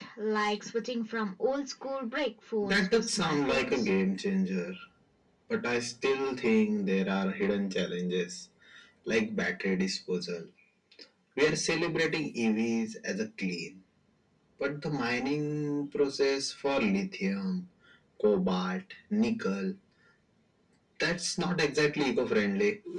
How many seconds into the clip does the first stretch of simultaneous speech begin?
2.6 s

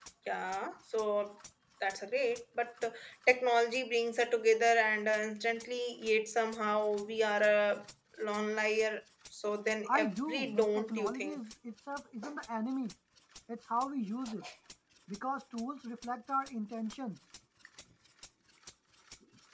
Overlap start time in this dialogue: 9.8 s

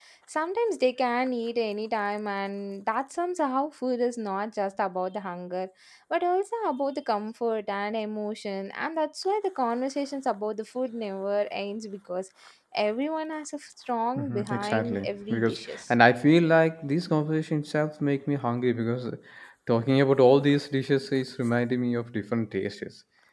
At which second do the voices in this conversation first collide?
14.2 s

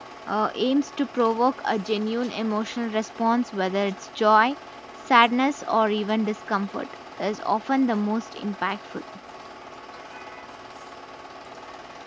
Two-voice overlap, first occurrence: none

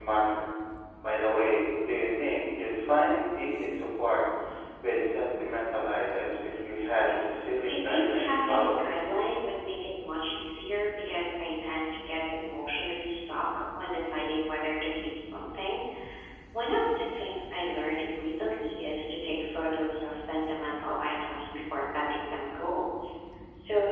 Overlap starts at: 7.6 s

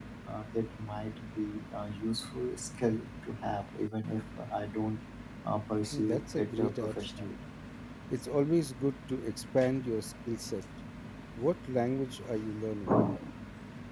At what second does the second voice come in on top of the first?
5.9 s

